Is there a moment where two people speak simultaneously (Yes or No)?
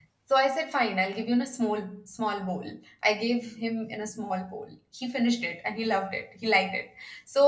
No